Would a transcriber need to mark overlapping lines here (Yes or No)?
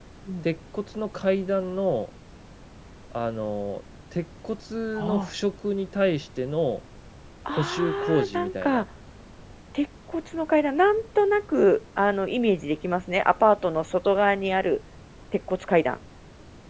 Yes